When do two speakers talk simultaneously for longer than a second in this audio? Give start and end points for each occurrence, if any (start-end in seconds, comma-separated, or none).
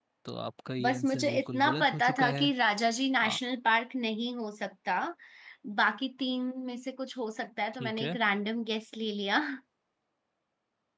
0.8-2.5